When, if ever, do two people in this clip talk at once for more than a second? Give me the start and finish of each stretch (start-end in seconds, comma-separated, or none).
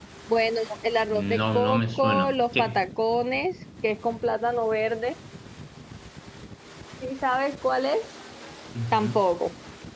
1.1-2.8